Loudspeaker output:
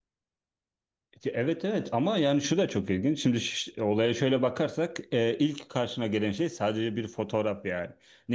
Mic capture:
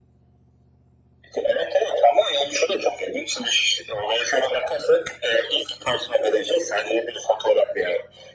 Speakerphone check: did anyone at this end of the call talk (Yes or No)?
No